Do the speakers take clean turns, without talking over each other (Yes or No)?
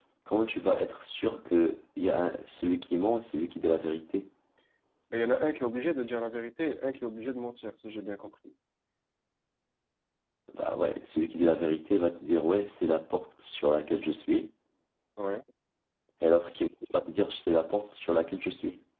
Yes